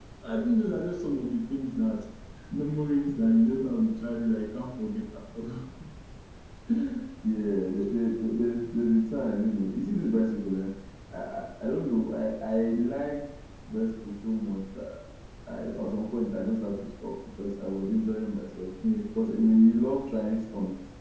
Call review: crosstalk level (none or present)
none